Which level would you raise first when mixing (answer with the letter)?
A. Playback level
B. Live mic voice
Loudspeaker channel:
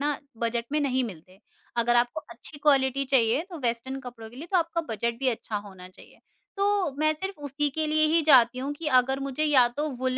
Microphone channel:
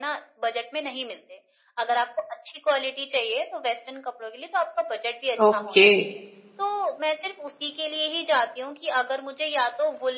A